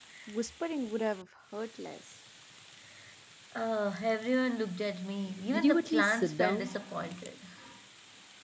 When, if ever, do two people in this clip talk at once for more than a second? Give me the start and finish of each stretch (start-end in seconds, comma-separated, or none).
5.5-6.7